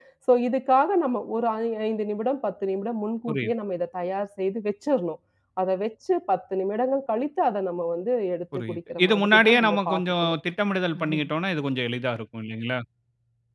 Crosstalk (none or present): present